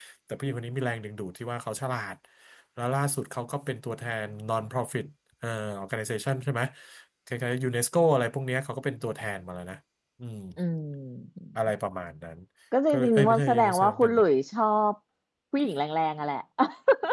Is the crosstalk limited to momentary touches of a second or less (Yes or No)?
No